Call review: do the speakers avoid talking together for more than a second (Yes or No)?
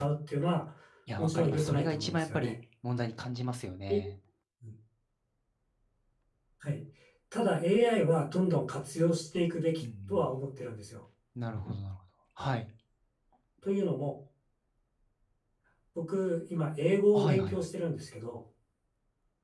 No